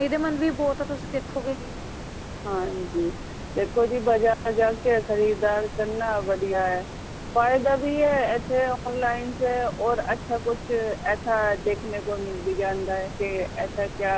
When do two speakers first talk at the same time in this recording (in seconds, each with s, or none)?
none